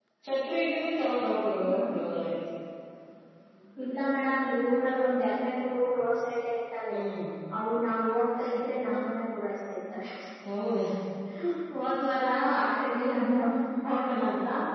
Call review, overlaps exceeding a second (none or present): none